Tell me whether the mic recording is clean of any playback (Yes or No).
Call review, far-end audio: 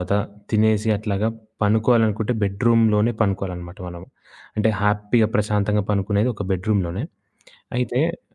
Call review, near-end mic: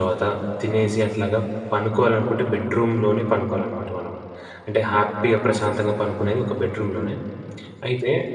No